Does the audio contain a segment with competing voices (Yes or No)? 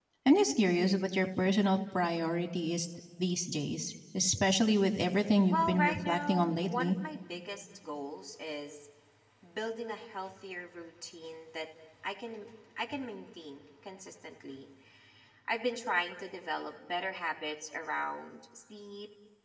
Yes